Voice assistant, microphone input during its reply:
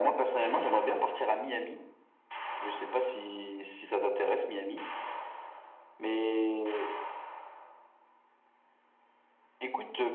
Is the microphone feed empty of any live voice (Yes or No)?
Yes